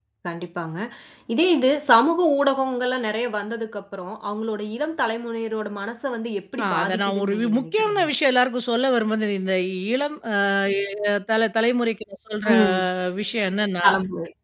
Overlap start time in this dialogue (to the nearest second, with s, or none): 7 s